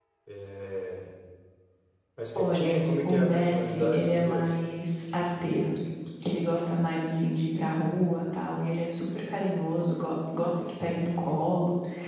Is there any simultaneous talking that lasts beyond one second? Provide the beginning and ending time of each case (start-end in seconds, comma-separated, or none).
2.4-4.5